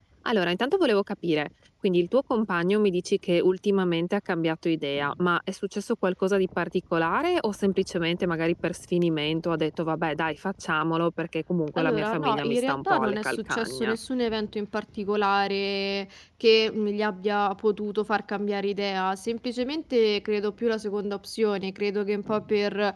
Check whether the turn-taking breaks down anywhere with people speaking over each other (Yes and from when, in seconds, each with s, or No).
Yes, from 11.8 s